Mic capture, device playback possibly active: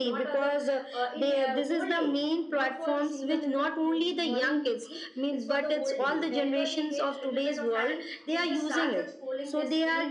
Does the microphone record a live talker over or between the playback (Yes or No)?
Yes